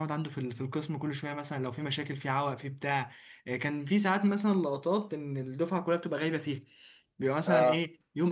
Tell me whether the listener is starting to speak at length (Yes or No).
No